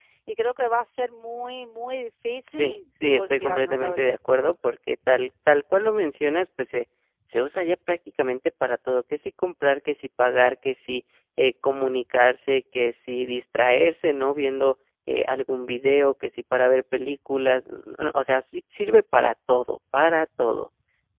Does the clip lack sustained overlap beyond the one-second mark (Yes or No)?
No